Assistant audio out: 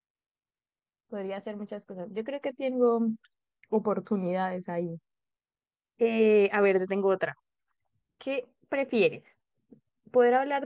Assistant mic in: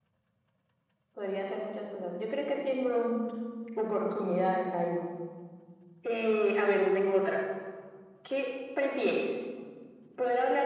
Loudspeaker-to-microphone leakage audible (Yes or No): Yes